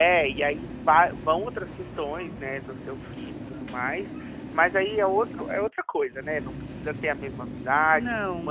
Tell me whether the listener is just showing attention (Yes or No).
Yes